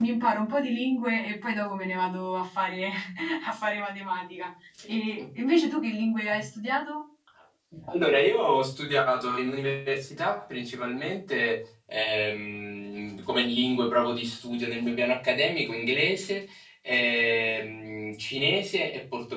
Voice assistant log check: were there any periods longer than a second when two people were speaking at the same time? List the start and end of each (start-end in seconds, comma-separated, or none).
none